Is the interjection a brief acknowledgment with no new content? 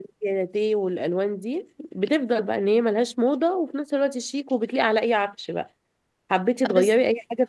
Yes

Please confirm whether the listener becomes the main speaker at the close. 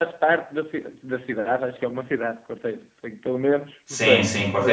Yes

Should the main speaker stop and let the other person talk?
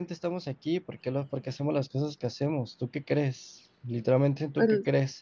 No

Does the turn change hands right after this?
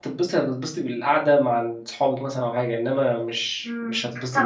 Yes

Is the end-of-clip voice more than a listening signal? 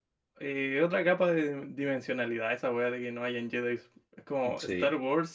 No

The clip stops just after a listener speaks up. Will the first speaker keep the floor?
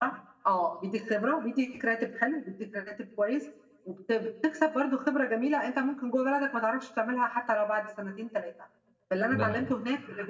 Yes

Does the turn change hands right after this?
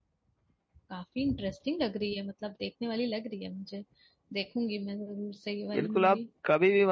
Yes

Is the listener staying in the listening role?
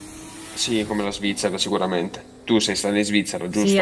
No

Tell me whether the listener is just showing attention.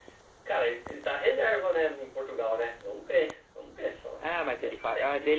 No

